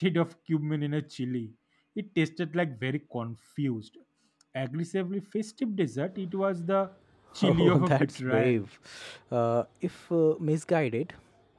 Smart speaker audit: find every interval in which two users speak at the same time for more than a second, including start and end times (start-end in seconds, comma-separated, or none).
7.4-8.6